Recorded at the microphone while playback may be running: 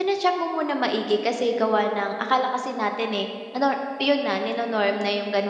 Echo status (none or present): none